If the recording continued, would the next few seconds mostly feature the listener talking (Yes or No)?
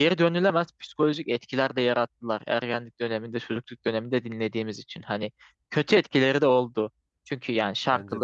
No